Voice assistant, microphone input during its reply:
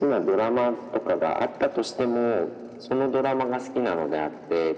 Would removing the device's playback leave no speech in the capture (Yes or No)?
Yes